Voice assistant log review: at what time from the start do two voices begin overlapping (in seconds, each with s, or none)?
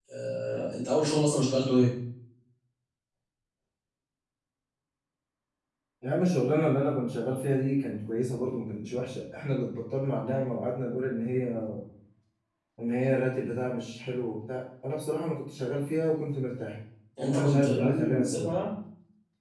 17.3 s